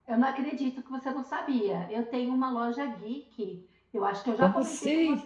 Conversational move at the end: listening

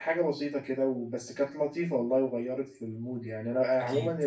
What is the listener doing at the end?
listening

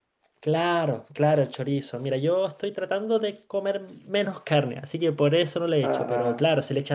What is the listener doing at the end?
listening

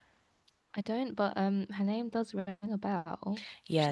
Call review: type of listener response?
taking over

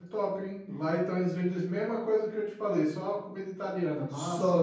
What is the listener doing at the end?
taking over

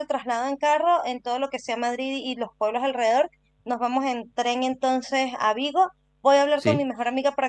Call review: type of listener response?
listening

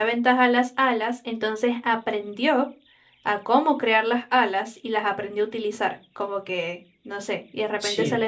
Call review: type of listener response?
listening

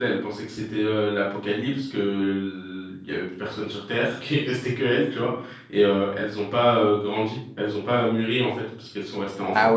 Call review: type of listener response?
taking over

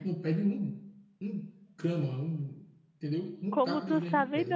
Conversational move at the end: taking over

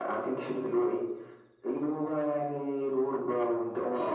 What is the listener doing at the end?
taking over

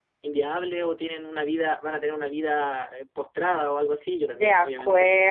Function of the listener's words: taking over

